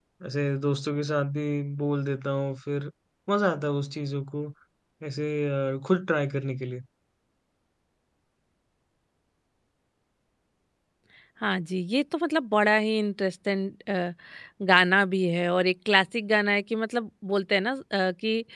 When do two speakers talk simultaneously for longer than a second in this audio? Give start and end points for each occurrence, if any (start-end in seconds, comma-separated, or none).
none